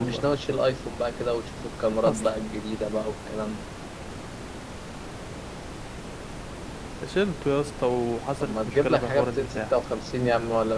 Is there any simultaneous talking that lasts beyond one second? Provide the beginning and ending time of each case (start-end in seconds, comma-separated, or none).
8.4-9.7